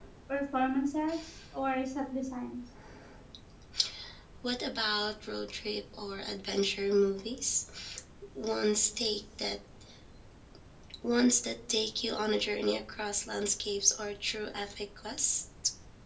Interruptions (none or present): none